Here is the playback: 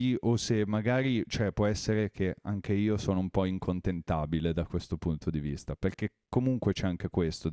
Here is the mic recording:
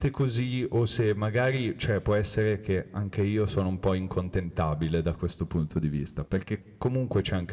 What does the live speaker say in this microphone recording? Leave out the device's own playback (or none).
none